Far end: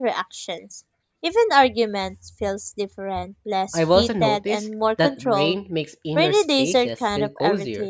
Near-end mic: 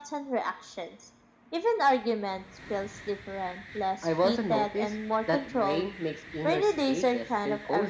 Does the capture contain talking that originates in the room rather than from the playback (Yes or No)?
No